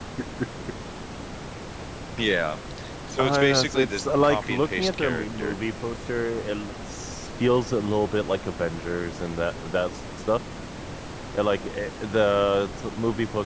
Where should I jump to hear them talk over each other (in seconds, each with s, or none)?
3.2 s